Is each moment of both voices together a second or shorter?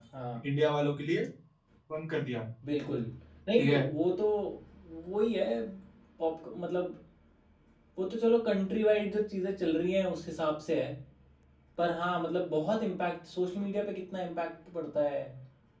Yes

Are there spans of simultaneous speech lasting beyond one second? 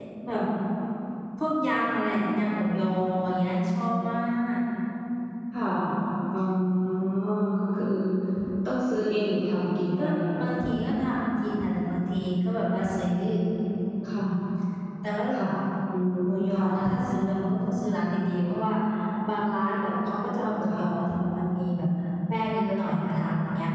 No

